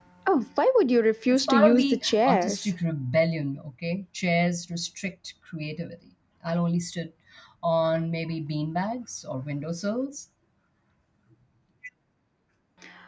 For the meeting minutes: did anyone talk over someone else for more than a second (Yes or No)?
Yes